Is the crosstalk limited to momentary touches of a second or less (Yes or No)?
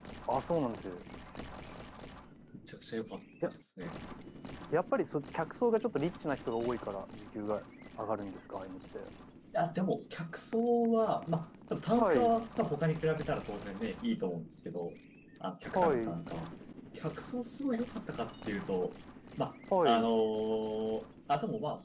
Yes